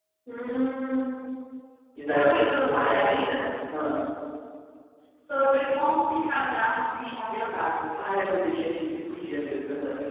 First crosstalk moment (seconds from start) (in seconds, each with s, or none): 2.1 s